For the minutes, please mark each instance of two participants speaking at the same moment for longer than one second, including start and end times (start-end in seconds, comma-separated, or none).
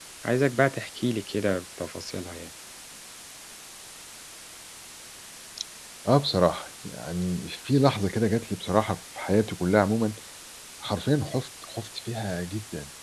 none